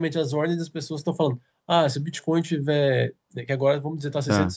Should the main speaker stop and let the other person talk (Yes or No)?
No